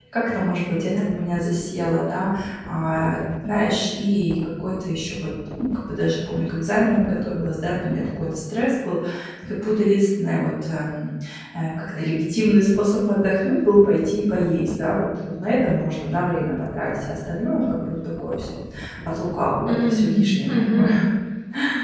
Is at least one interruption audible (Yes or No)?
Yes